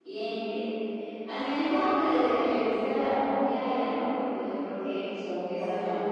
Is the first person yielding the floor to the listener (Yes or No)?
Yes